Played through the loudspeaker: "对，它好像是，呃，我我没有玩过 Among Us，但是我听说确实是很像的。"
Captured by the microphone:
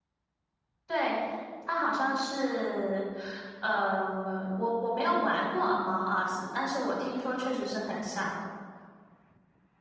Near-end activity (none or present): none